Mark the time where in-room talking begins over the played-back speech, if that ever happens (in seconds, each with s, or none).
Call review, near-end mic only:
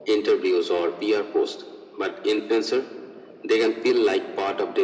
none